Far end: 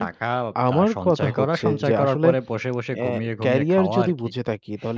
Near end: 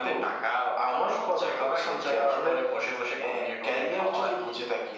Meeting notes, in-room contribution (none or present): none